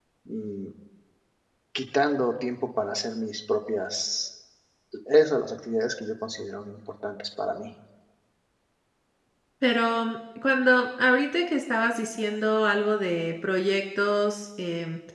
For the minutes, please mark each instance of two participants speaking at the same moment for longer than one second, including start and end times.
none

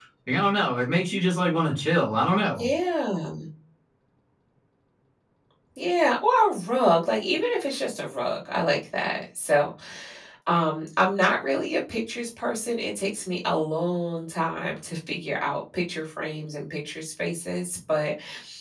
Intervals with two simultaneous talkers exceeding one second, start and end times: none

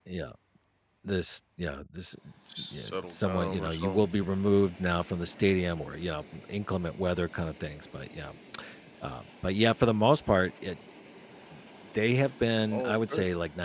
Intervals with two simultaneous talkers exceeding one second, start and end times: 2.6-4.0

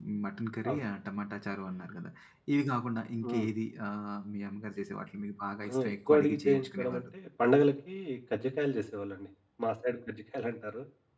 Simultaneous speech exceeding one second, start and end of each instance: 5.6-7.0

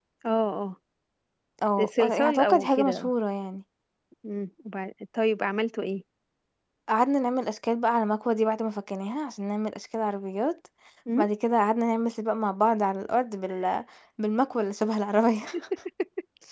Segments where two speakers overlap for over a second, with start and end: 1.9-3.1

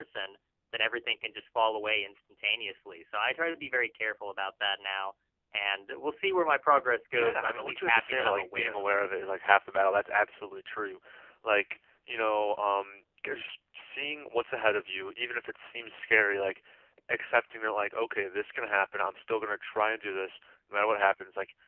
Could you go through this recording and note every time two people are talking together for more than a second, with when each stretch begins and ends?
7.1-9.0

